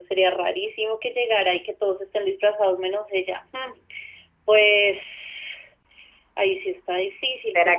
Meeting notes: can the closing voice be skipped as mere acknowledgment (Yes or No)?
No